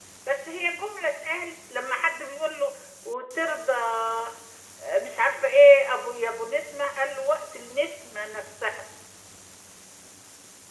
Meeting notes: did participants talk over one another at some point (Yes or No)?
No